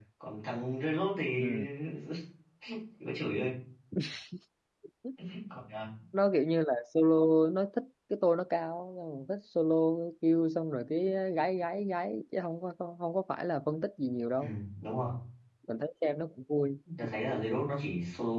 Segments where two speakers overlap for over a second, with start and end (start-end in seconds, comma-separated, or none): none